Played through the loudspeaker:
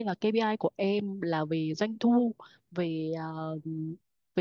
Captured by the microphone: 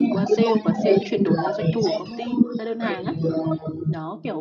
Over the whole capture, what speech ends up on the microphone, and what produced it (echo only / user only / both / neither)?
both